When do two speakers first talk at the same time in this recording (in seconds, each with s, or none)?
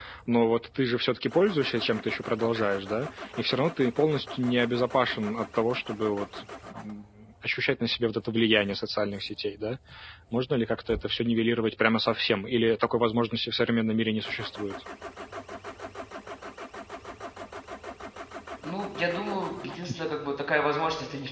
none